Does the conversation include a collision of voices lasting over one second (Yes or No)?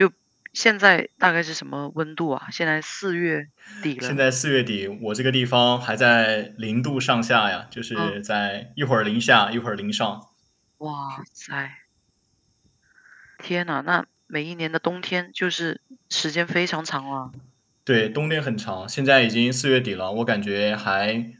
No